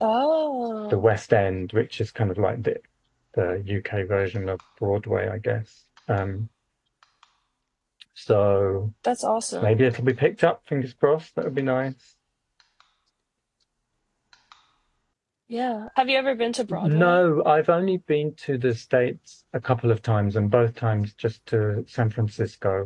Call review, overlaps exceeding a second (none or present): none